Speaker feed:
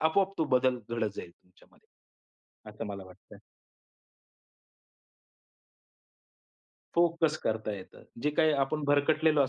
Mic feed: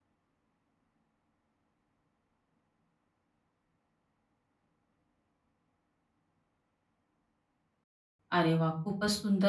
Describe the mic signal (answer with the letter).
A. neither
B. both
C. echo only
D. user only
D